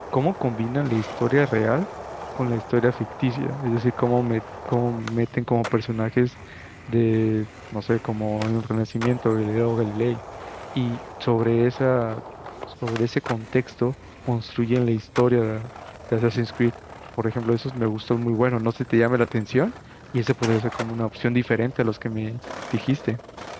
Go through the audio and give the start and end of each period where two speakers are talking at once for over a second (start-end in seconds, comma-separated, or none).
none